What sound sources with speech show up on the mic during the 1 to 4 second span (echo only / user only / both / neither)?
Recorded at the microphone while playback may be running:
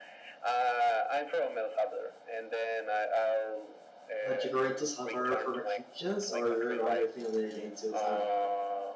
echo only